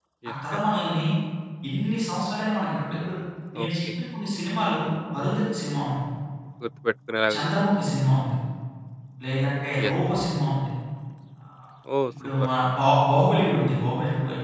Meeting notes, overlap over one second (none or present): none